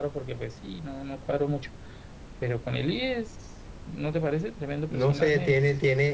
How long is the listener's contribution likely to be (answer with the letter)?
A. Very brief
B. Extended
B